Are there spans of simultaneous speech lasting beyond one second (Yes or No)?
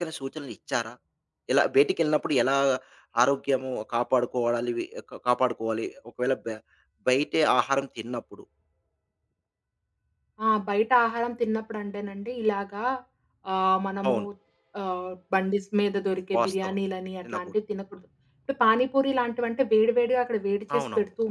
No